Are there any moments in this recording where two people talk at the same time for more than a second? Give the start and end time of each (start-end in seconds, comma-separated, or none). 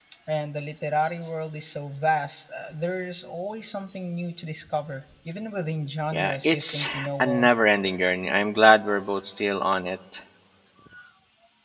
6.1-7.5